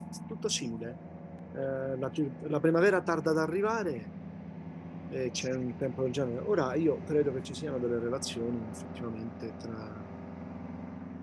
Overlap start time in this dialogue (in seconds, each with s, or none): none